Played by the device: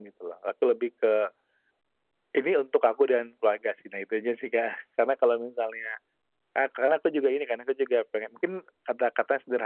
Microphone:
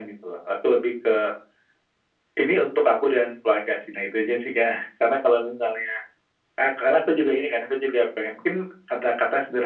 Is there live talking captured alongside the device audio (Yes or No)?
No